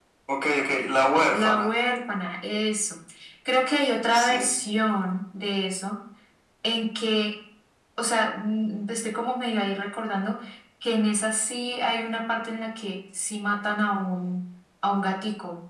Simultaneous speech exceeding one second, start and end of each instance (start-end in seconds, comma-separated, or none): none